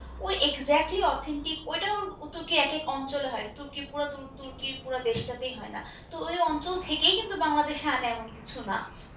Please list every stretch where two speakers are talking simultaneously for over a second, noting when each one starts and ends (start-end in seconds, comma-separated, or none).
none